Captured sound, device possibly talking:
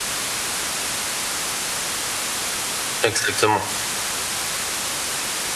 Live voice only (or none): exactement.